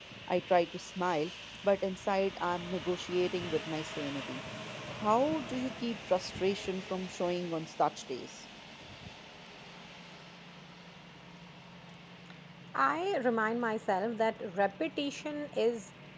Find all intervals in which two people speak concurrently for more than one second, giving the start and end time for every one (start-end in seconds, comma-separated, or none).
none